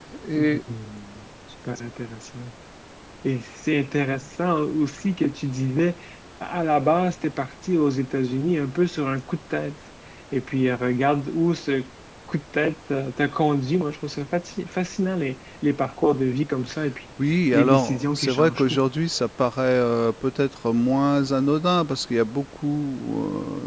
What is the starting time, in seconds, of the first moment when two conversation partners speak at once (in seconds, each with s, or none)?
17.5 s